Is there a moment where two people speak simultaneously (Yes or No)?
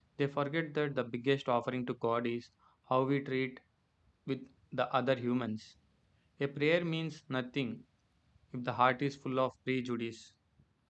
No